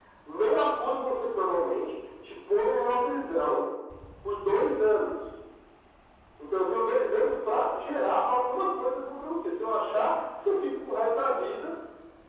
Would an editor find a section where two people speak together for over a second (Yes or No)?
No